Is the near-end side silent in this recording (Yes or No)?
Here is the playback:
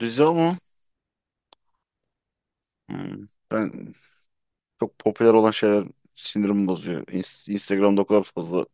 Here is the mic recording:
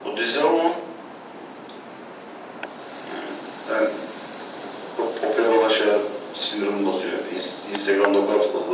Yes